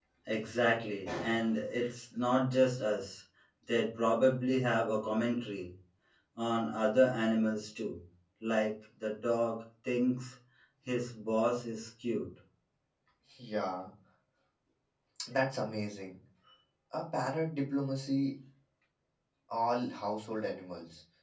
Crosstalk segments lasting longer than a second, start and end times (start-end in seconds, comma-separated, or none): none